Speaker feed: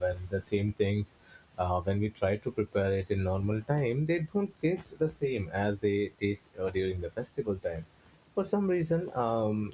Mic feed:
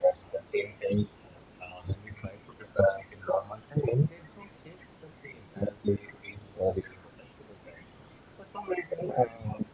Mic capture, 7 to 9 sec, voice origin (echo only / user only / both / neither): echo only